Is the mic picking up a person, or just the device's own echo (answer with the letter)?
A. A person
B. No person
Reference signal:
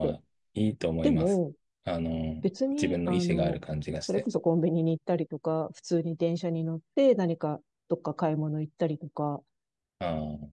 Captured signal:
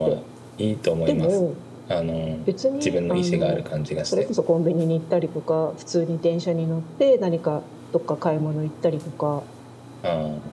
B